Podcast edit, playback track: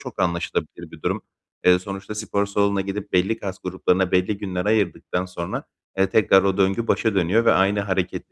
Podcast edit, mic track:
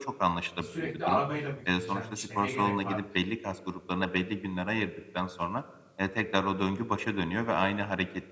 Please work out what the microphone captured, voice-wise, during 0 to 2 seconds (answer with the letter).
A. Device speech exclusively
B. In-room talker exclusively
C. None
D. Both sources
D